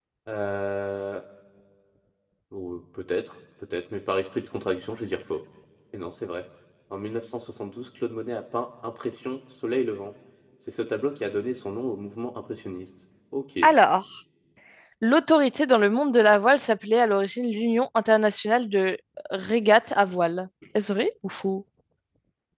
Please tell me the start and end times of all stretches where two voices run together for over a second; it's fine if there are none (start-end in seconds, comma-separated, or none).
none